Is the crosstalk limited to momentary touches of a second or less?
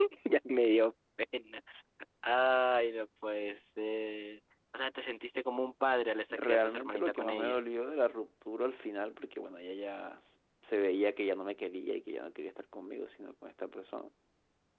No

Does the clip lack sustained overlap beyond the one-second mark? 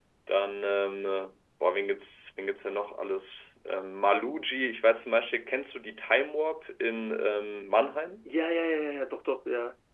Yes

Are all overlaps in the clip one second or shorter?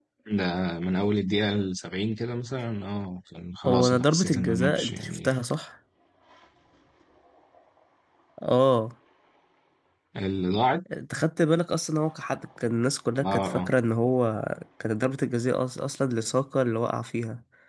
No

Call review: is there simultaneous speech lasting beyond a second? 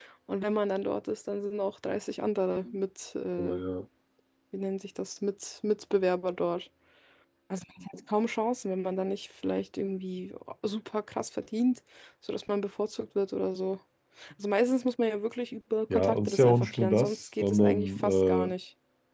Yes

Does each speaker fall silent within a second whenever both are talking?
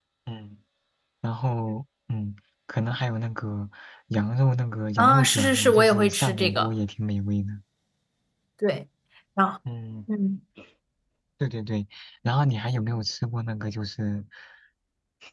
No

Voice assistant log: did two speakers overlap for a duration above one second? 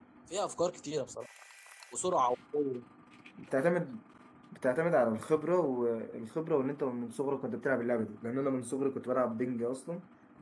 No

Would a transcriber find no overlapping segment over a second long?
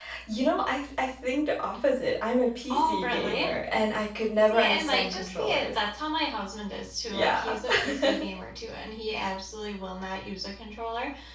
No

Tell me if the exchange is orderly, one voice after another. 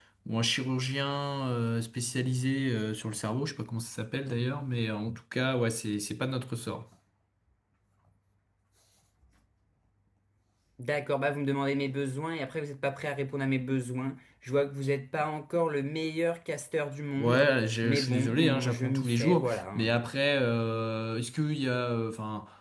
No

